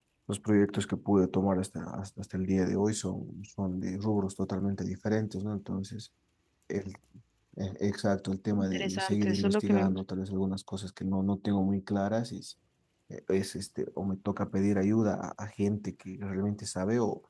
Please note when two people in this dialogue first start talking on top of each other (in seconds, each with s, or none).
8.5 s